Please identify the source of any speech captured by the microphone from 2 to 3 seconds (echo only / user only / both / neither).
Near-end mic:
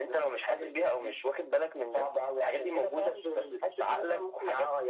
echo only